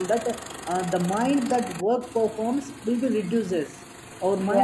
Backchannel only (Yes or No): Yes